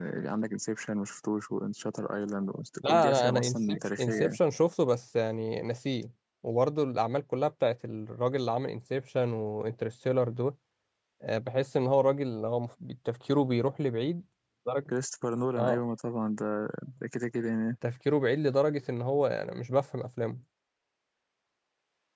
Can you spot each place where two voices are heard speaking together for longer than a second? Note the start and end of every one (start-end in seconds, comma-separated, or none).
2.8-4.4